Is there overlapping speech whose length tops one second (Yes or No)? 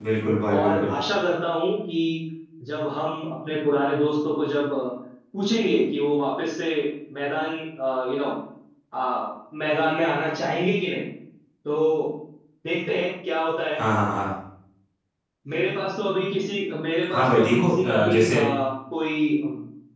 Yes